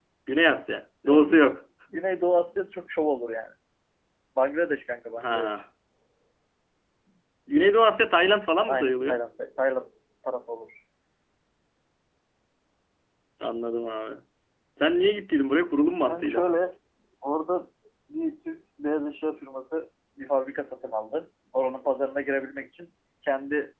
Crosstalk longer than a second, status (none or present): none